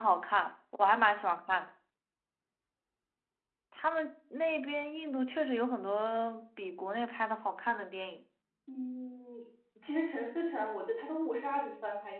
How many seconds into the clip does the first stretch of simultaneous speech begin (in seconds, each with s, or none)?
none